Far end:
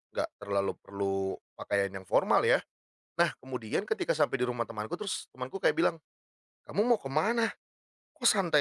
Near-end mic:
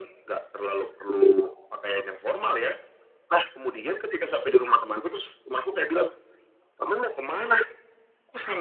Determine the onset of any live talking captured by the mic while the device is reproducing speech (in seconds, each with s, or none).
none